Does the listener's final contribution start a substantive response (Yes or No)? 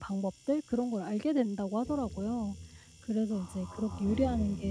No